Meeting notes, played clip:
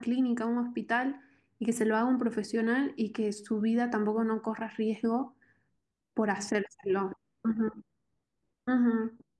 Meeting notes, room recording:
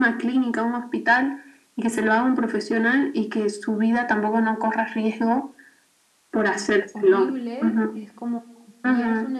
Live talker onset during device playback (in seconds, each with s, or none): 6.9 s